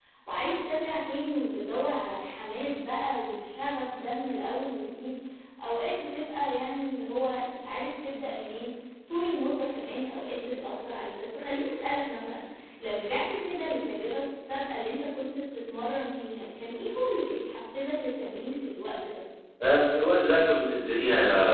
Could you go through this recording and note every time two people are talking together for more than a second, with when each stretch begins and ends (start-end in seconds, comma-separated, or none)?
none